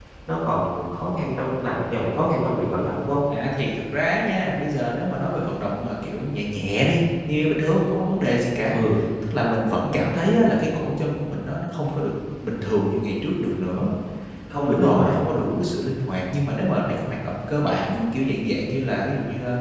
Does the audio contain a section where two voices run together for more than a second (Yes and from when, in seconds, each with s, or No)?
No